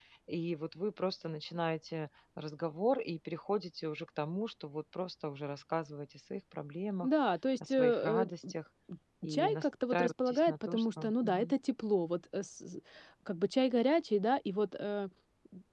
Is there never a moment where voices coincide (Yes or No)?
No